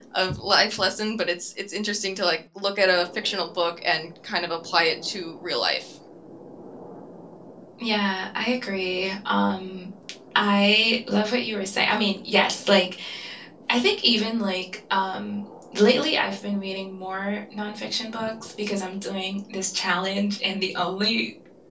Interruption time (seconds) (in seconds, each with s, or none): none